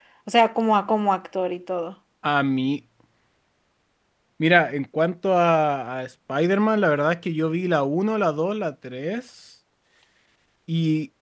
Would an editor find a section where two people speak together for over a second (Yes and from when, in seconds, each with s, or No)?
No